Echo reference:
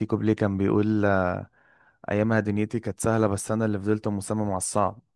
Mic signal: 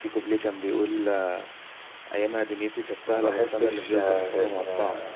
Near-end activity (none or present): present